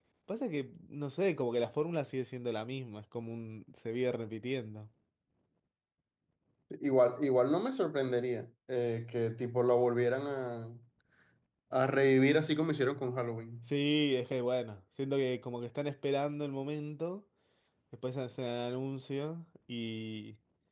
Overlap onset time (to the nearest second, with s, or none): none